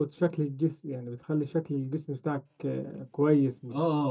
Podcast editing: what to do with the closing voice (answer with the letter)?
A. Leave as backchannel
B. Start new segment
A